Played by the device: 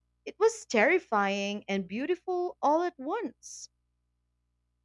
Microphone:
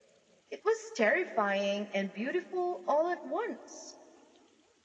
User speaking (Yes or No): No